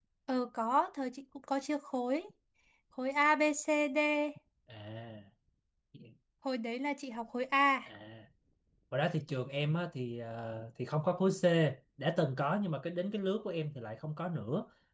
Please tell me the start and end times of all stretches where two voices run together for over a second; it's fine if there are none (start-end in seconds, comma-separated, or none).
none